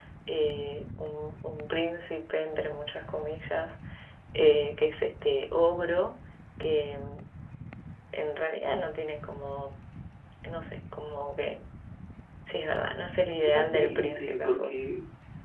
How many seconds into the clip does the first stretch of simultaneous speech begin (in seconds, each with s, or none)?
13.4 s